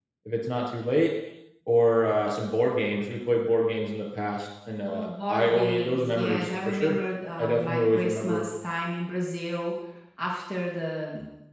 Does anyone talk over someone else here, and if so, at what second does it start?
4.8 s

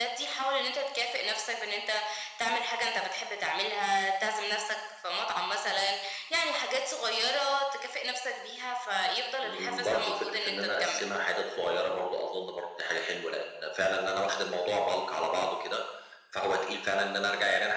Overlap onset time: 9.4 s

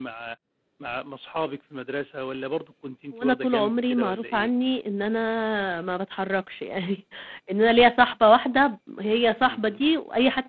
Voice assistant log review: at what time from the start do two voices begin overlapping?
3.2 s

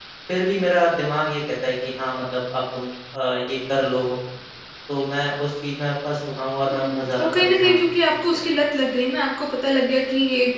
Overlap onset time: 6.7 s

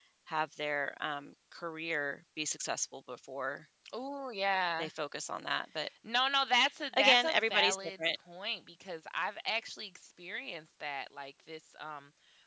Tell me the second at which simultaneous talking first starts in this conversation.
6.9 s

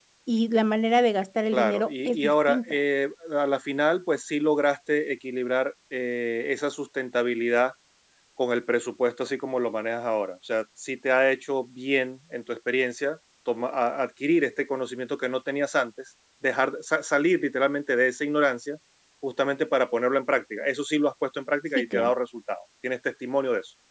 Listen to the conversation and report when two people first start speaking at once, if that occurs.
1.5 s

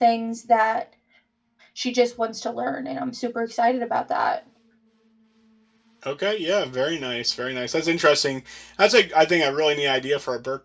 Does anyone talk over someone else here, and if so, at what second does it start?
none

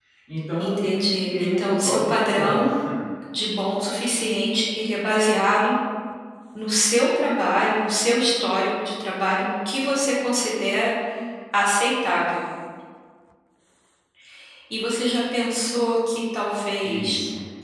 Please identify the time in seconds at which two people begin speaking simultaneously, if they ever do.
0.6 s

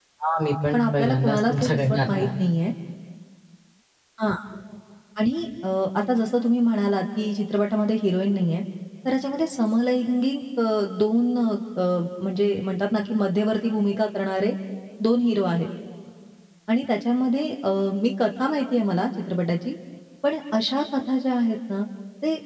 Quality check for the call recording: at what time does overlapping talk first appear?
0.7 s

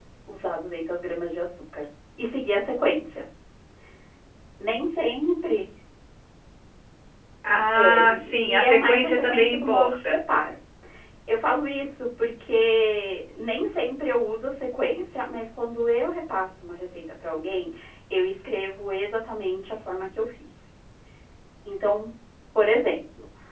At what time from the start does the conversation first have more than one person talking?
7.8 s

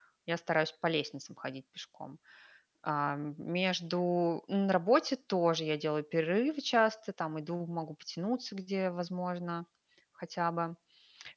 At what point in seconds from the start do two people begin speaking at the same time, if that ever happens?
none

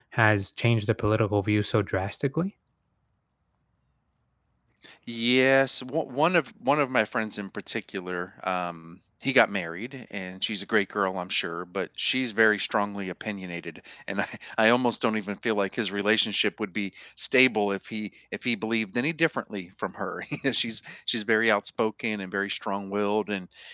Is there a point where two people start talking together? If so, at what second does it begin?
none

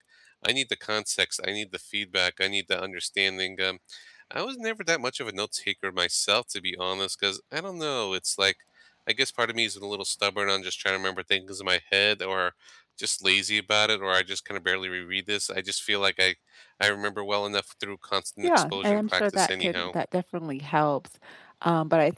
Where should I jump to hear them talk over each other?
18.4 s

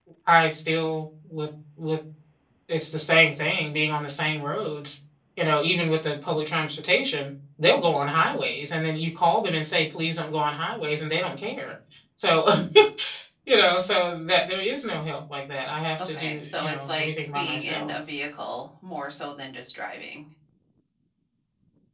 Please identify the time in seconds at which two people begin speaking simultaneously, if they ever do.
16.0 s

